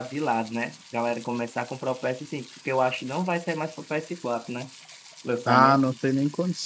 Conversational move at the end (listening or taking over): taking over